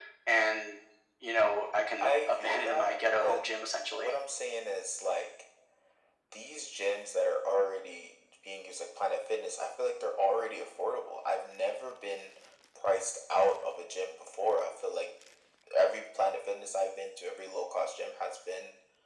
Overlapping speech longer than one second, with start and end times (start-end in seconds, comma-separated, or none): 2.0-3.4